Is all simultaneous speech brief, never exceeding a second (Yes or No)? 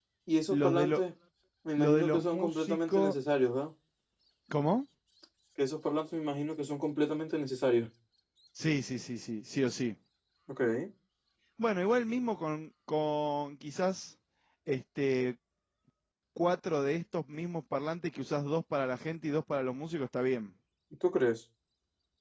No